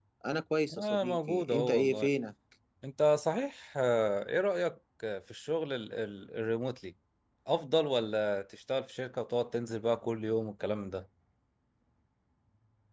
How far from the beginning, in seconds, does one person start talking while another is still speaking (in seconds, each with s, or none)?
0.7 s